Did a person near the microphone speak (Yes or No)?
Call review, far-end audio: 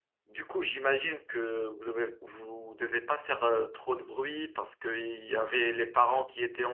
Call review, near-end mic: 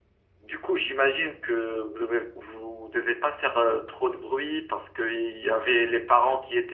No